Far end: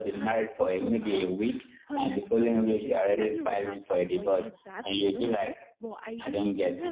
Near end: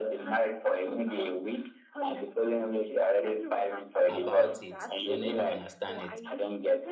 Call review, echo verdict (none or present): present